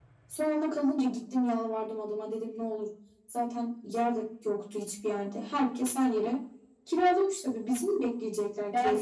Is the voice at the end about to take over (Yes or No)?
Yes